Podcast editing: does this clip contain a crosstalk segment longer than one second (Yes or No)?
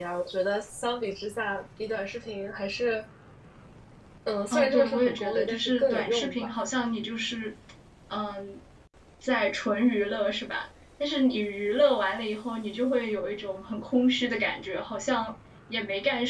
Yes